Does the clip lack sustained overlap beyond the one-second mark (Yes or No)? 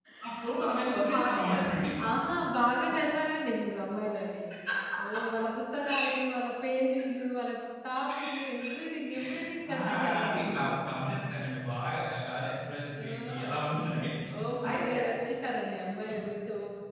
No